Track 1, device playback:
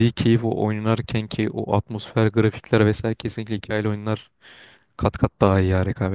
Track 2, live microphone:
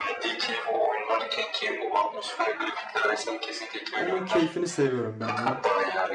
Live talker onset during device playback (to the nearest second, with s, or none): 4 s